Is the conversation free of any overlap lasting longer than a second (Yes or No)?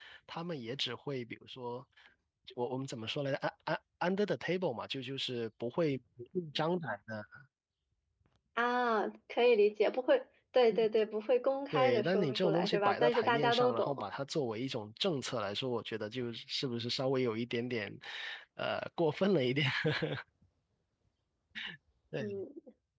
No